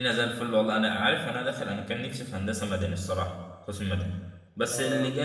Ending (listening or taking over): listening